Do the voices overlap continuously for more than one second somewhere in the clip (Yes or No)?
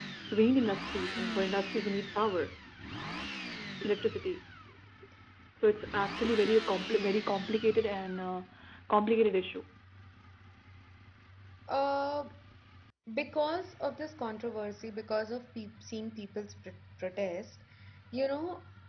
No